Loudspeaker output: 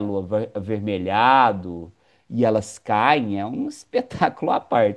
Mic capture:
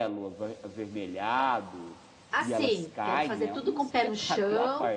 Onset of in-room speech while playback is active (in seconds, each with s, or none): 2.3 s